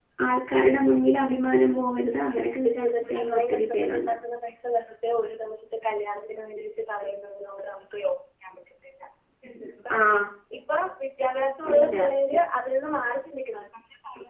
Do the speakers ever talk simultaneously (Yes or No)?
Yes